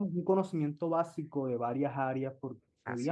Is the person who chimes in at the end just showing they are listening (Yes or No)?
Yes